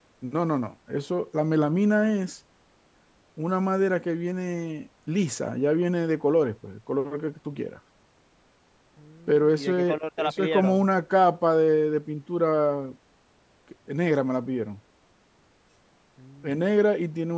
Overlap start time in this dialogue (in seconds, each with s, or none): 9.3 s